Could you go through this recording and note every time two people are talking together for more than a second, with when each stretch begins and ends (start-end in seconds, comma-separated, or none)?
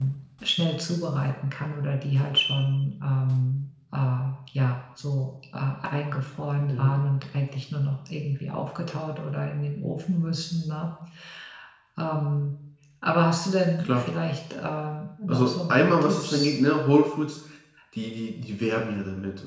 15.3-16.5